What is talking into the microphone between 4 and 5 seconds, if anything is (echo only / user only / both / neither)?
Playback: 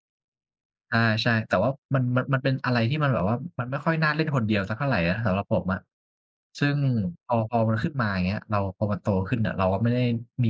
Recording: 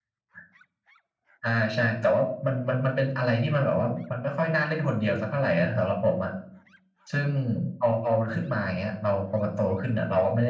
echo only